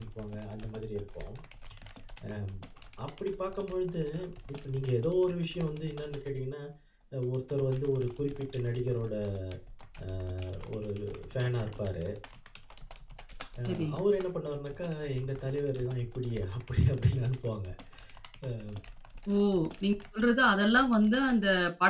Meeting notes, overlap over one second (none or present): none